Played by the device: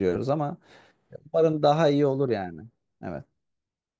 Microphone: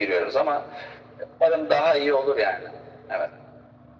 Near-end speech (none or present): none